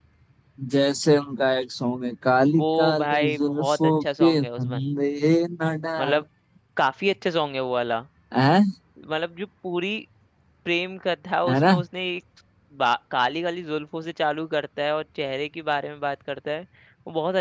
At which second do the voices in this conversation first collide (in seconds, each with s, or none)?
2.6 s